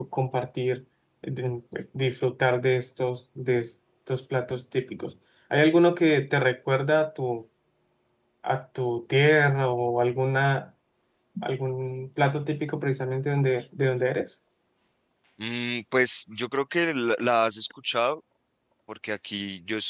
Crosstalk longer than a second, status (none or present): none